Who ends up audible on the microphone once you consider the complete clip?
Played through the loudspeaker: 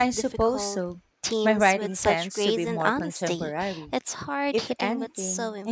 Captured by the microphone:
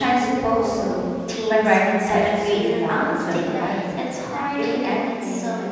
both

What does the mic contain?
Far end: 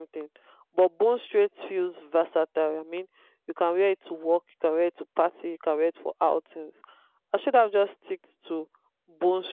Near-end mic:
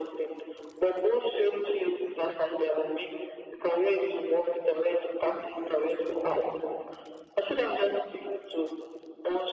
echo only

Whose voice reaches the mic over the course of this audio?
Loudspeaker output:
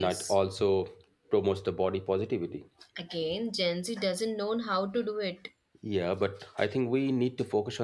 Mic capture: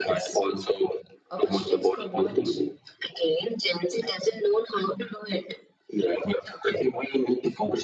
both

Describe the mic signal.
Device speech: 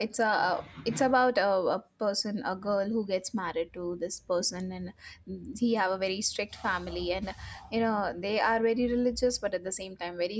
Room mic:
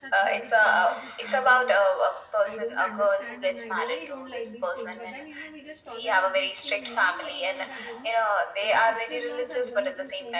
both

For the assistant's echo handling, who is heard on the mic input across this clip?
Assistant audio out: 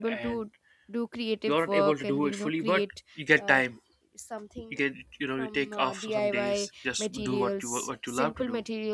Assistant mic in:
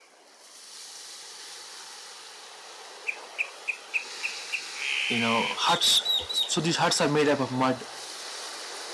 user only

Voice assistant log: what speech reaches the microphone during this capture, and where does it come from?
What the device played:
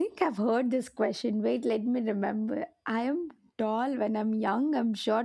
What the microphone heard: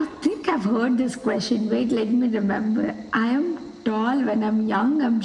echo only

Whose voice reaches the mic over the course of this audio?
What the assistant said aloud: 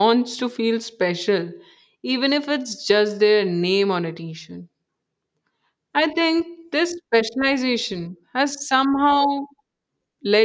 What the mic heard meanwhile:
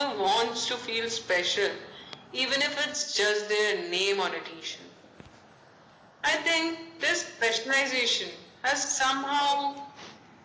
echo only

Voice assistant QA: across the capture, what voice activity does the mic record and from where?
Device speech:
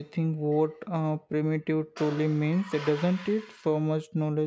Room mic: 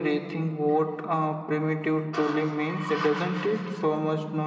echo only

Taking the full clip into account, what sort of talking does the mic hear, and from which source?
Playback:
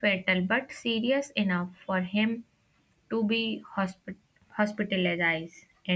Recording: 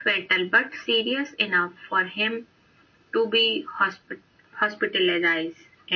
echo only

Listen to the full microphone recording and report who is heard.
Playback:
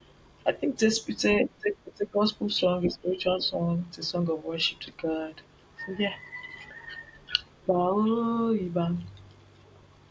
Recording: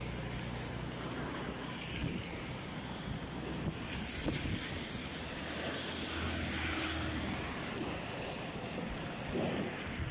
neither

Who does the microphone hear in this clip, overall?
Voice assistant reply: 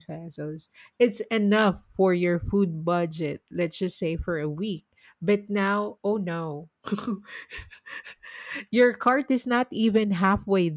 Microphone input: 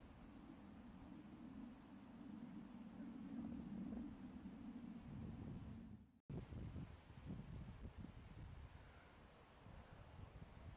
neither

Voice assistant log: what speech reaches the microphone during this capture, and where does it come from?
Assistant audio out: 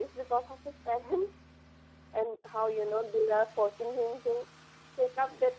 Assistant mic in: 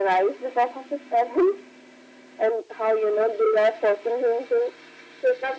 echo only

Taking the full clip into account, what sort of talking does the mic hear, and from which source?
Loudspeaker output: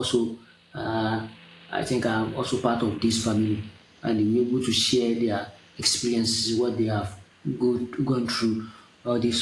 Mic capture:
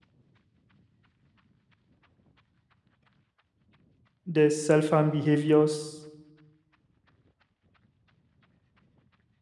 user only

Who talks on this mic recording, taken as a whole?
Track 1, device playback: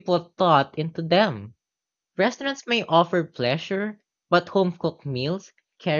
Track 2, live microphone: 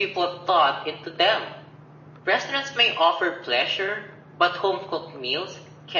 echo only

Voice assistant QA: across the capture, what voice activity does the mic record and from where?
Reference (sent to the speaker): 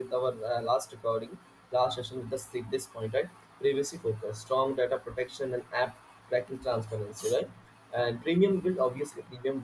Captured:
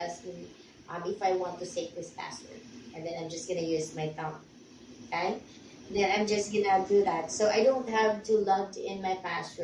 user only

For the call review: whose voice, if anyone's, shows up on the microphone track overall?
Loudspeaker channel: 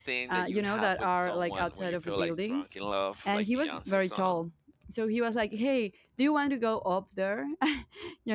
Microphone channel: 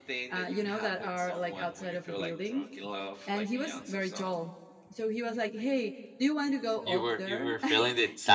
both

